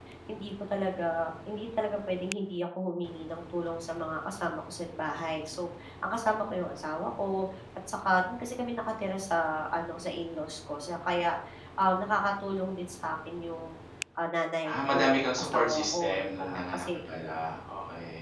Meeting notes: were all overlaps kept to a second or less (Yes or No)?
No